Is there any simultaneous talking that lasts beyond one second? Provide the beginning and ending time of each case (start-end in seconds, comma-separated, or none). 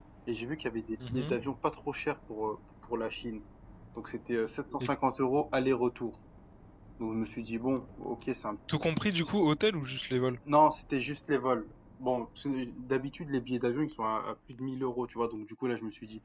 none